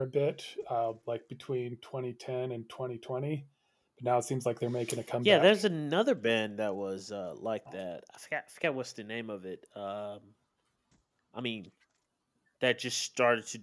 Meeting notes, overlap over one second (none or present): none